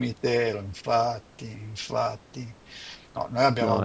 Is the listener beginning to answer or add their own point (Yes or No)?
No